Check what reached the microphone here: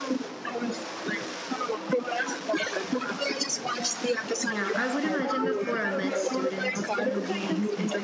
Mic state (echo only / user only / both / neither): both